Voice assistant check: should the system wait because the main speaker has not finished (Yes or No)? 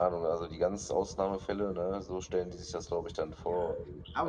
No